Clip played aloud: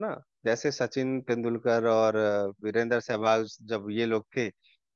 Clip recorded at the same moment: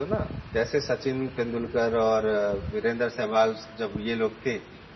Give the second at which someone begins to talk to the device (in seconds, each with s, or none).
none